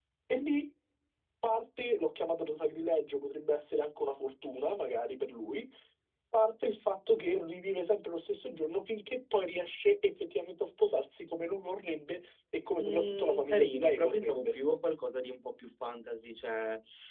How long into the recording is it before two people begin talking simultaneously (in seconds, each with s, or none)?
12.8 s